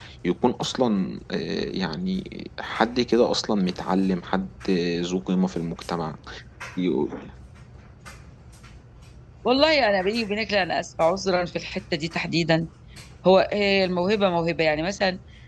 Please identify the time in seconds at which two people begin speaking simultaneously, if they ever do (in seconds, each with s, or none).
none